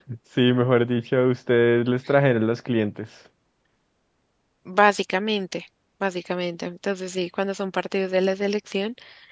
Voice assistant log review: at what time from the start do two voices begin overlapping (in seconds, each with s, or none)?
none